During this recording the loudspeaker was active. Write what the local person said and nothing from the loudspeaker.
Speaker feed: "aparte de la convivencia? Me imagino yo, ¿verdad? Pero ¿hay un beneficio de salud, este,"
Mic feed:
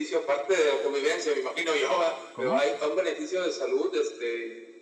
¿Cómo?

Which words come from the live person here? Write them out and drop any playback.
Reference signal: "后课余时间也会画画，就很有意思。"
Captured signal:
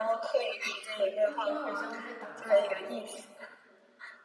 因为因为我经常会被打到

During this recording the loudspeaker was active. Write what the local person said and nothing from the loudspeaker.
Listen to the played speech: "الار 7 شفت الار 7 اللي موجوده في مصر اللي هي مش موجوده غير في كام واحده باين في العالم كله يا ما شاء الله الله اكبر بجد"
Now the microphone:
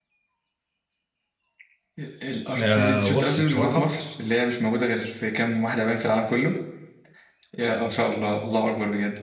آه بص بصراحة

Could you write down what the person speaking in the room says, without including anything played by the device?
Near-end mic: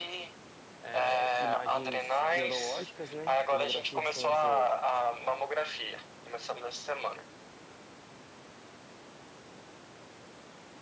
é, imagens neurológicas, né? Tomografia, e ressonância

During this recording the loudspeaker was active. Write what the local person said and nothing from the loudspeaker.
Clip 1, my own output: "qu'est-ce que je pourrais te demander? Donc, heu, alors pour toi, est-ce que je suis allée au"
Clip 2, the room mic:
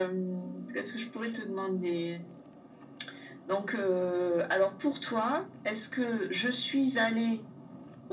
none

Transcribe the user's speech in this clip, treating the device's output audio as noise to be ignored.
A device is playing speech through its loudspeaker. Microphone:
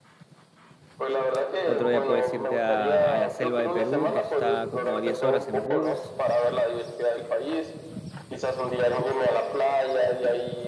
otro día puedes irte a, a la selva de Perú, que está como a 10 horas en bus,

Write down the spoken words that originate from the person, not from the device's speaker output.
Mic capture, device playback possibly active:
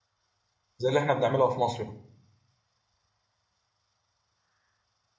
زي اللي احنا بنعملها في مصر

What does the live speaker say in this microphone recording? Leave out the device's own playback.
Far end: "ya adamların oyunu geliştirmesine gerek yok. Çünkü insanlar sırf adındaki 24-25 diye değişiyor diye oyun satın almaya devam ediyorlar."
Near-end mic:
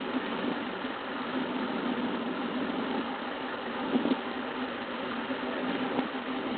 none

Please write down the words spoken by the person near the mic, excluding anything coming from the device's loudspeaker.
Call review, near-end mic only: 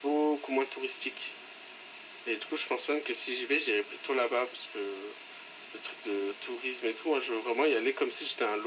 none

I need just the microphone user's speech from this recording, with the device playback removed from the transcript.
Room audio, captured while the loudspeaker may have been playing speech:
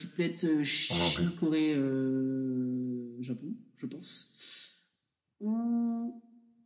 moi non plus.

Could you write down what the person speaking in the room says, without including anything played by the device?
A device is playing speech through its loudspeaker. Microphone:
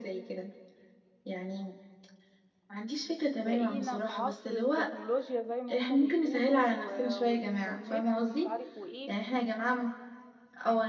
بقينا في عصر التكنولوجيا زي ما هم بيقولوا و- والإنترنت ومش عارف وإيه

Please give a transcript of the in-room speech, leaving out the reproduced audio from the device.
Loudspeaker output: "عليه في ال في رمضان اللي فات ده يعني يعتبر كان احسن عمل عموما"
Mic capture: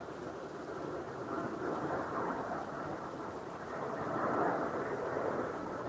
none

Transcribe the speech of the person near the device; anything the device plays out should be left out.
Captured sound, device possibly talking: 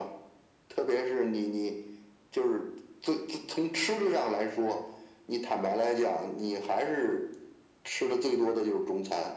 none

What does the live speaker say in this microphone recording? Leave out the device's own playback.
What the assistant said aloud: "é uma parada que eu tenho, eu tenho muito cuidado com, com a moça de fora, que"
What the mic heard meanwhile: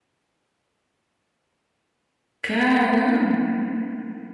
Caramba,

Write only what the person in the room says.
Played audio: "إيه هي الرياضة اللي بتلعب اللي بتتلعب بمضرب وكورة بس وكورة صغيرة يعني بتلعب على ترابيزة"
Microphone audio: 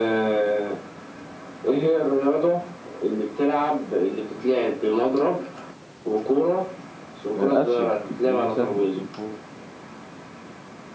آه، آسيا دي سهلة مفروض

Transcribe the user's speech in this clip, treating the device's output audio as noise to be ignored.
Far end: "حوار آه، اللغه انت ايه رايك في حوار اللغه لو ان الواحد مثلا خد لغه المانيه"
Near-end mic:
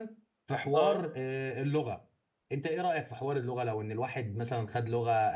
اه

